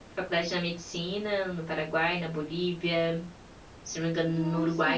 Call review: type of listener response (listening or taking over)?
listening